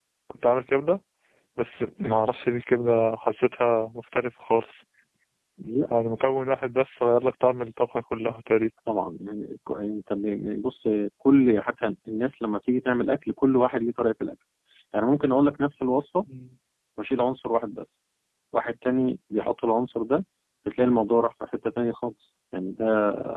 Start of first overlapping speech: none

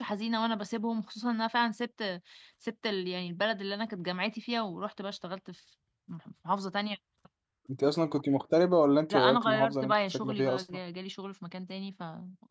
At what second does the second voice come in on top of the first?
9 s

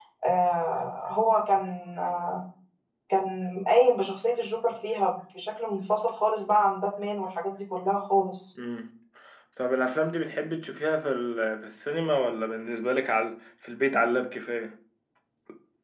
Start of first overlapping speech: none

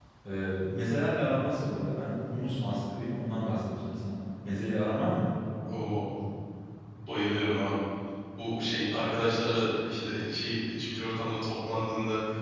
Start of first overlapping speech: none

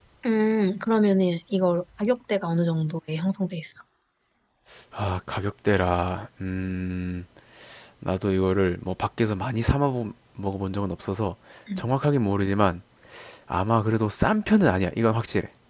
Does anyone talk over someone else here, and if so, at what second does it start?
none

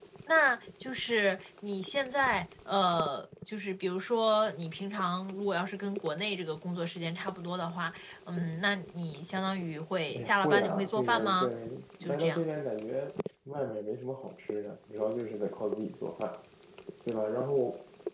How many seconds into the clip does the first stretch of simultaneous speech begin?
10 s

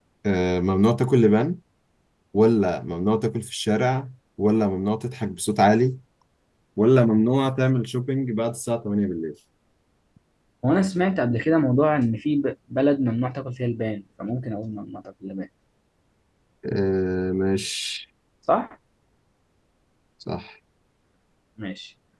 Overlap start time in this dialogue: none

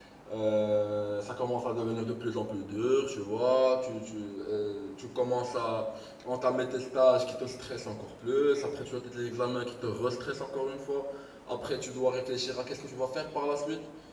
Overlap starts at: none

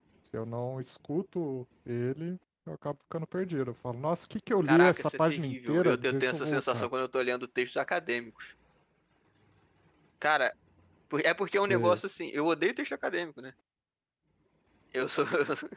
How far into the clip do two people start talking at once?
5 s

